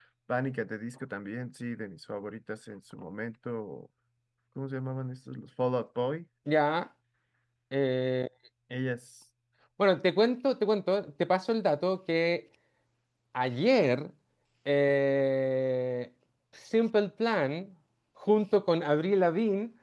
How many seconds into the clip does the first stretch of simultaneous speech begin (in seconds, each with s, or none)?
none